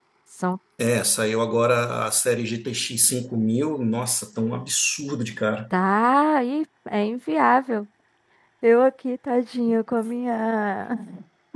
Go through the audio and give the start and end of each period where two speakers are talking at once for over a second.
none

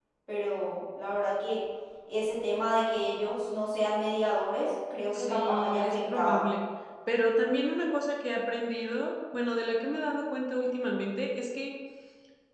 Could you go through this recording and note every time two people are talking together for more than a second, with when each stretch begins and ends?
5.1-6.4

